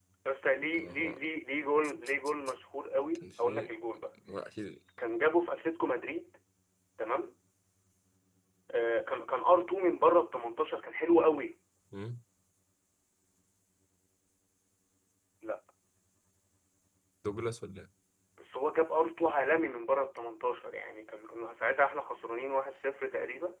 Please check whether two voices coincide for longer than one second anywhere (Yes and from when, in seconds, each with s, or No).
No